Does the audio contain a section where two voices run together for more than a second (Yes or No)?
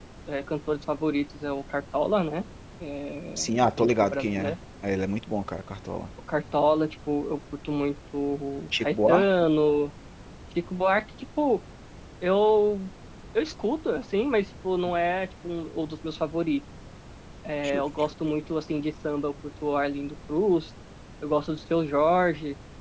Yes